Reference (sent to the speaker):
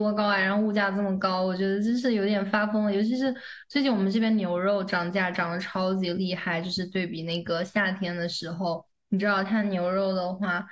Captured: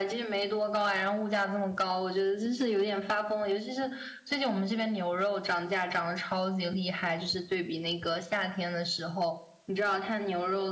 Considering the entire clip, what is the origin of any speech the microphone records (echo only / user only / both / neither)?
echo only